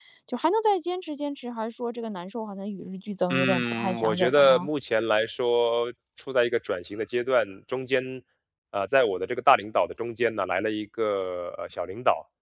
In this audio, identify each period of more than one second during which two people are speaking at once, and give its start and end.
3.3-4.7

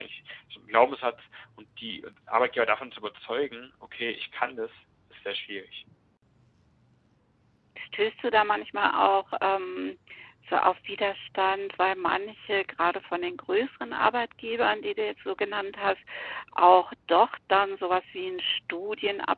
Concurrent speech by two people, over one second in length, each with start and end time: none

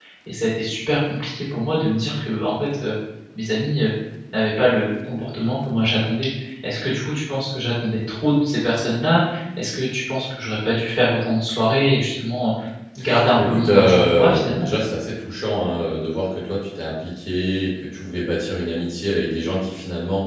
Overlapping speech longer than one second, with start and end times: 13.4-14.7

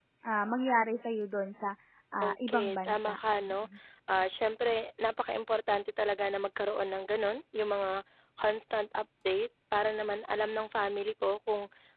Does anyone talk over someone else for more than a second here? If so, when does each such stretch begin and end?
2.2-3.5

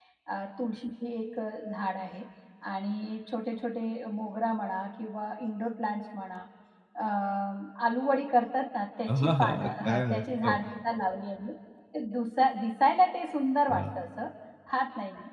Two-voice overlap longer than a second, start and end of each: 9.1-10.6

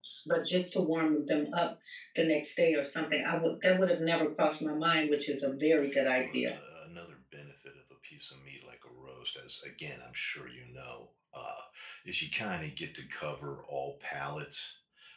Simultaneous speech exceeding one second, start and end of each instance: none

